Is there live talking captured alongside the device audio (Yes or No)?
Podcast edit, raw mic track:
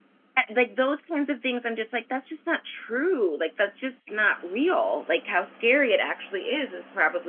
Yes